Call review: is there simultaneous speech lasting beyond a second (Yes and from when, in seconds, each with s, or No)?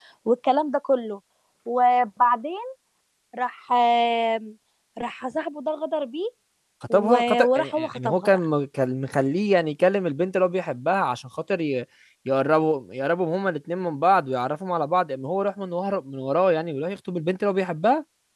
Yes, from 6.9 s